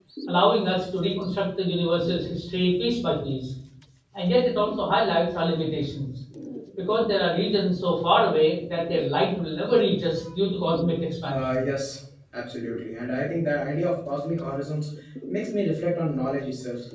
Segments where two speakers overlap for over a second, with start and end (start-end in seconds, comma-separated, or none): none